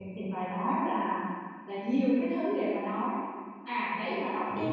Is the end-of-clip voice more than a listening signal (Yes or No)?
No